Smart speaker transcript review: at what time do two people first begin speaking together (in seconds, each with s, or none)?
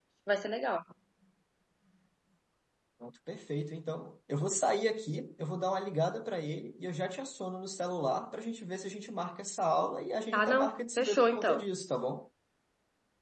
10.3 s